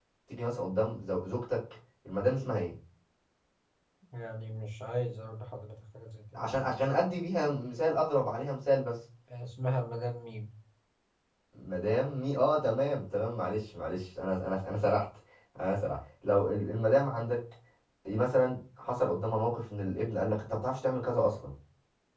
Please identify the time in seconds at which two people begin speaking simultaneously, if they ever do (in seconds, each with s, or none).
none